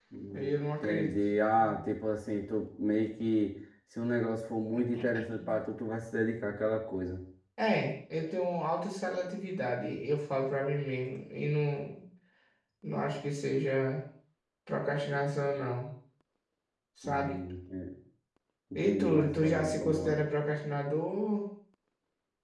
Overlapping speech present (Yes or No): Yes